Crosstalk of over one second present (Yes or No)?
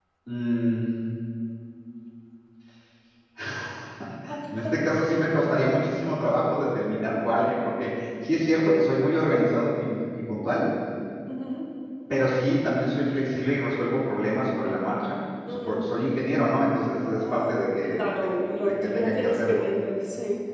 Yes